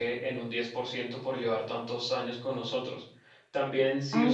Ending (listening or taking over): listening